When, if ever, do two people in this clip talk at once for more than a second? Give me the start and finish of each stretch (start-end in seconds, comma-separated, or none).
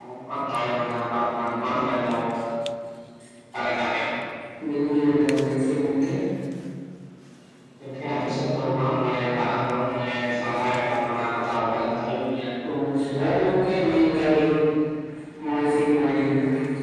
none